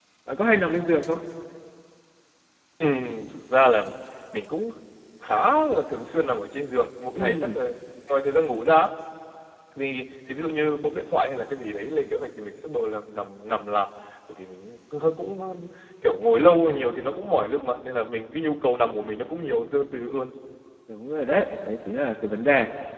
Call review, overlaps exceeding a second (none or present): none